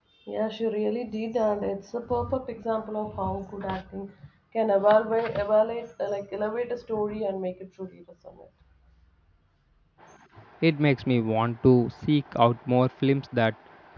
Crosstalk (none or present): none